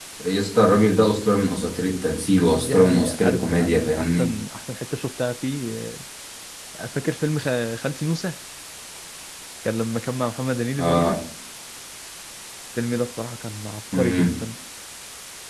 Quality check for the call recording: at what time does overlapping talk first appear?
2.5 s

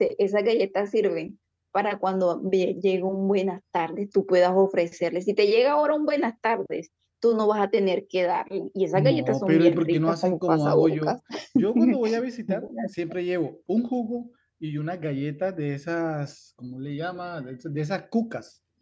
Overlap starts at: 8.9 s

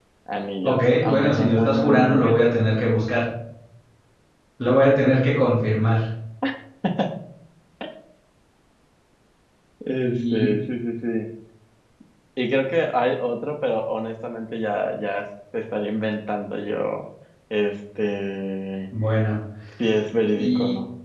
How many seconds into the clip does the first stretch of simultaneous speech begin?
0.6 s

